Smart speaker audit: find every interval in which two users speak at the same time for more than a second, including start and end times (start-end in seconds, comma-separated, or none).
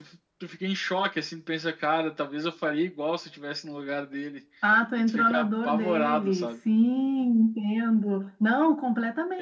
5.1-6.5